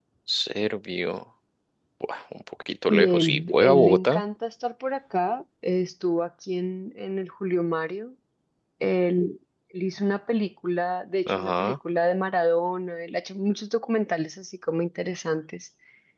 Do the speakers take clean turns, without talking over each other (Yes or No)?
No